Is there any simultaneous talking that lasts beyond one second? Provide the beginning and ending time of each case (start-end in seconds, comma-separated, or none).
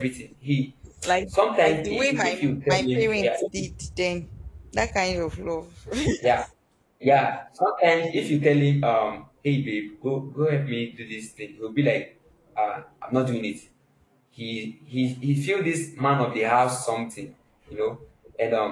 1.6-3.7